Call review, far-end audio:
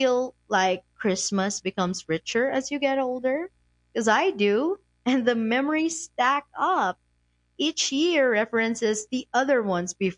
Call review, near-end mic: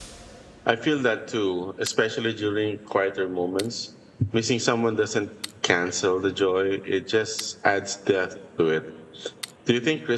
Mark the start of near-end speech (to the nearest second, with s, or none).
1 s